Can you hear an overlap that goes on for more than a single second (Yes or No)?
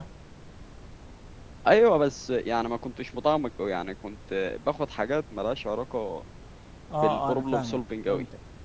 Yes